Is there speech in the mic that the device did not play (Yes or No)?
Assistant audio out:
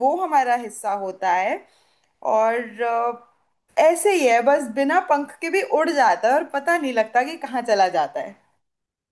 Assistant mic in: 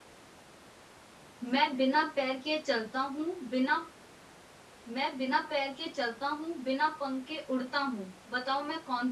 Yes